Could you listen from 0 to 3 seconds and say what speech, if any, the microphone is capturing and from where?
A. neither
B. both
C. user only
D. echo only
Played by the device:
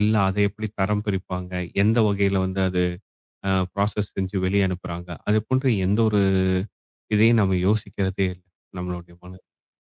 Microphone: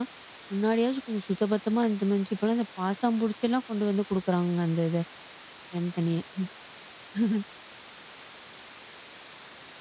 C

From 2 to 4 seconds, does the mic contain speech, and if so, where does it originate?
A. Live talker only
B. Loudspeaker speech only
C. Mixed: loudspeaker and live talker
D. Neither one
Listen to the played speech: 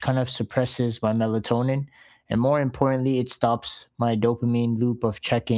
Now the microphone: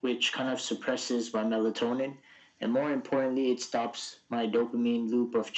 B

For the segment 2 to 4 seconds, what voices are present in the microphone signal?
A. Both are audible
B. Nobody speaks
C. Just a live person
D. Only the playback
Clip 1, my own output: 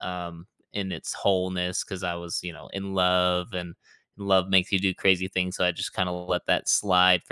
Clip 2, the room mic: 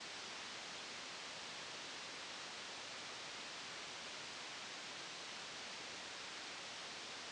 B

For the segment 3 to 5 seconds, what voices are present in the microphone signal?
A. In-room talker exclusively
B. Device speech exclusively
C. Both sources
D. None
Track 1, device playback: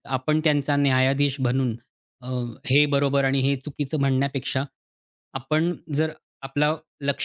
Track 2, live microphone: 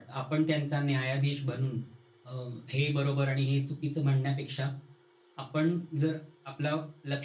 B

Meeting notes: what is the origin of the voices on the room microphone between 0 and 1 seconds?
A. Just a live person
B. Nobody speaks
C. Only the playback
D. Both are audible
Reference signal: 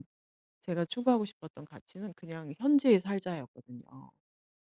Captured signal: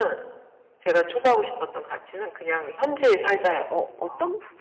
C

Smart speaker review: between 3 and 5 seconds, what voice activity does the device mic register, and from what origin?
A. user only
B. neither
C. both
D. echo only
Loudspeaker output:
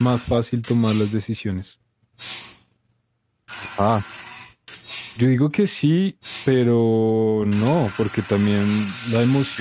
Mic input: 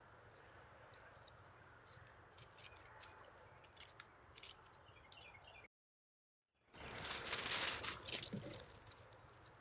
B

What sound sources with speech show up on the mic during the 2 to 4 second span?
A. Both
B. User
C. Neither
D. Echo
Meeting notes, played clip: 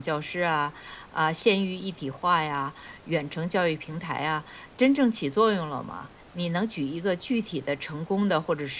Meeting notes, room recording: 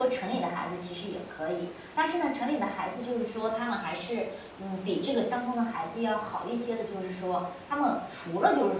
B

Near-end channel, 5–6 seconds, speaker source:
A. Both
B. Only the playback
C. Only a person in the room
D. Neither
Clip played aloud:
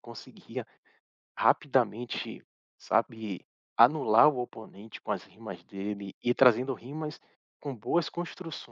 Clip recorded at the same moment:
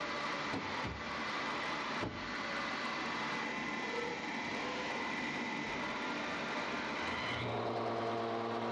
D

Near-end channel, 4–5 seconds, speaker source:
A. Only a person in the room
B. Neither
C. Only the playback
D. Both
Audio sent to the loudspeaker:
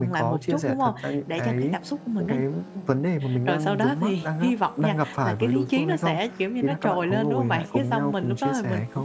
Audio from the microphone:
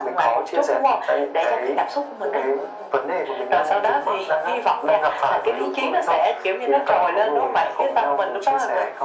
C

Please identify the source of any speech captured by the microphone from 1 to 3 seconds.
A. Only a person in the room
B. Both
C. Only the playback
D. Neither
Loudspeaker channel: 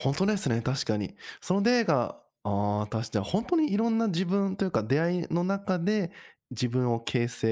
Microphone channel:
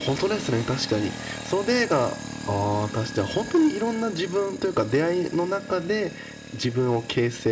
C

